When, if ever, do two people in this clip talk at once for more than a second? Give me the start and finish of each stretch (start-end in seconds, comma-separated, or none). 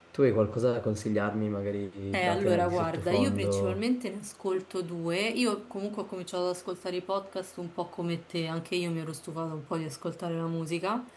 2.1-3.8